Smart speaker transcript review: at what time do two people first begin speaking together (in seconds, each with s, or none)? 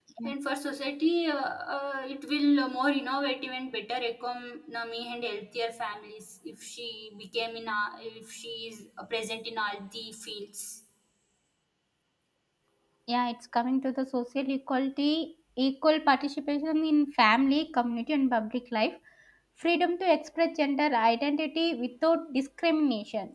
none